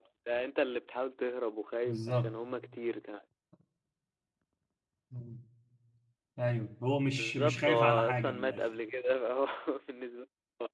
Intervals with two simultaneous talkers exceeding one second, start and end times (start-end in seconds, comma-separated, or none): 7.1-8.6